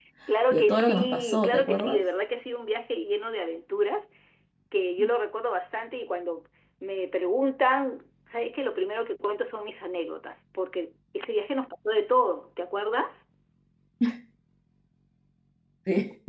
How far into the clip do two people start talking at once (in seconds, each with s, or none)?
0.5 s